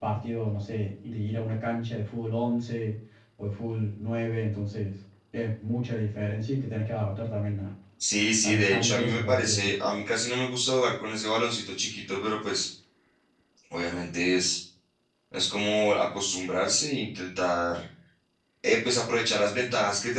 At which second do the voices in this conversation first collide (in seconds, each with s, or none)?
8.4 s